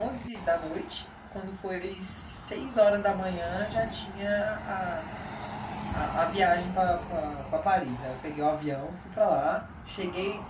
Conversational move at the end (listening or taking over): listening